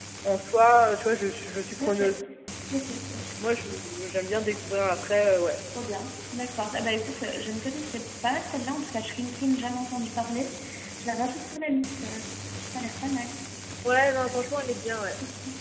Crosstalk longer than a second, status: none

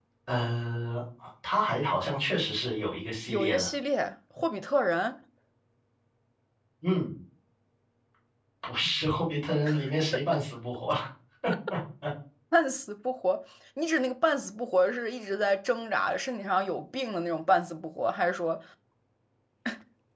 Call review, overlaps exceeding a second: none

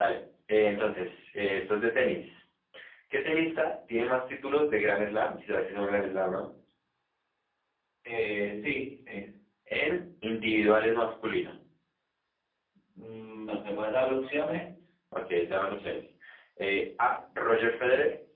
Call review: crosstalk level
none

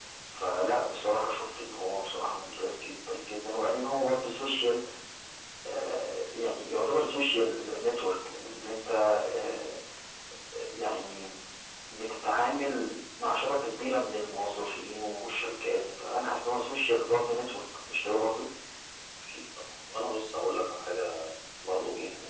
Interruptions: none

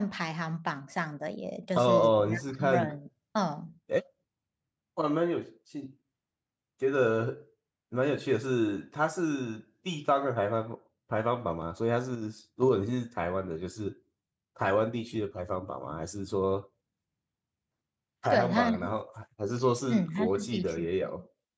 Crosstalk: present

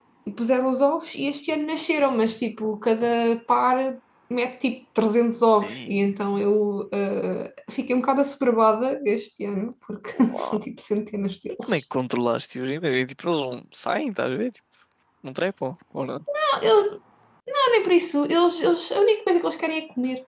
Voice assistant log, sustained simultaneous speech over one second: none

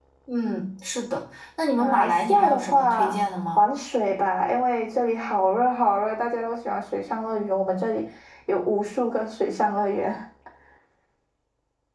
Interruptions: present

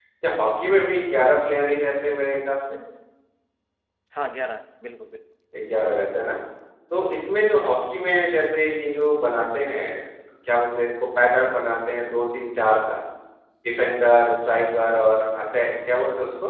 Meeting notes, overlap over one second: none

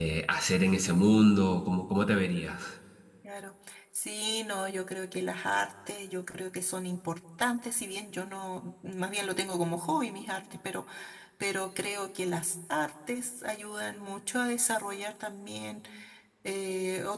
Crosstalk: none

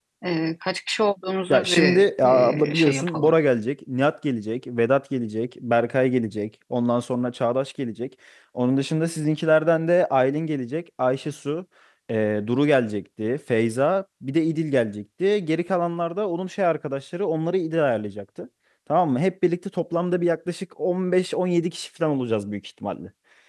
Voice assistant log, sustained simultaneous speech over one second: present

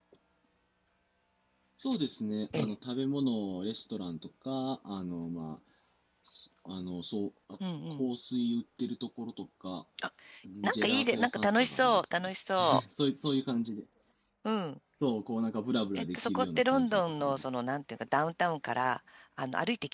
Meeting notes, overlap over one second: present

